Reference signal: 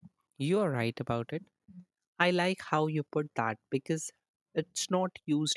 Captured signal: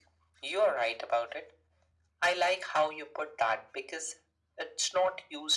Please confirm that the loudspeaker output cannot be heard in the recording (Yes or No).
No